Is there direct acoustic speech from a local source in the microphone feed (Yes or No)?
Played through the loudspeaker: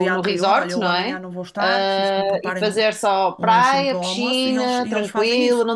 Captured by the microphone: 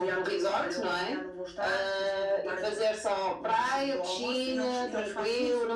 No